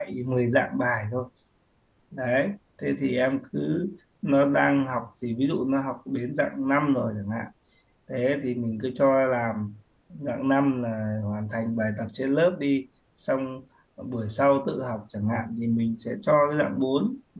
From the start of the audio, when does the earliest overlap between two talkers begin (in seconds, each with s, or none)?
none